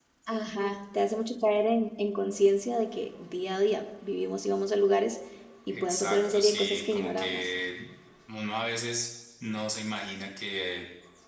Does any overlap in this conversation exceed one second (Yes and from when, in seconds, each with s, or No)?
Yes, from 5.7 s